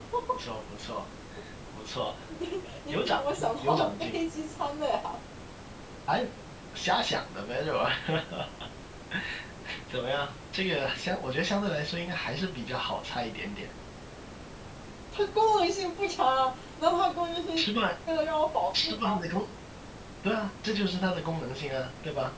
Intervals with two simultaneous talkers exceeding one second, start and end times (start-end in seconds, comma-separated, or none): 2.9-4.2